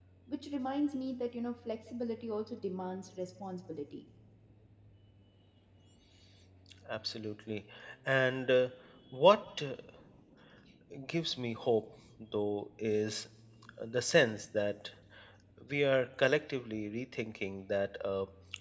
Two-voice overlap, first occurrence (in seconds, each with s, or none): none